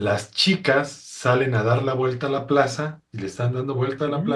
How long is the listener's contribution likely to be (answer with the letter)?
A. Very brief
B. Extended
A